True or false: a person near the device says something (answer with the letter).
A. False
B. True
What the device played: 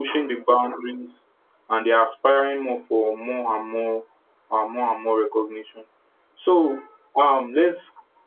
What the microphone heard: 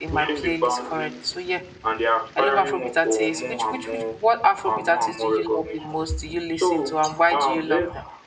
B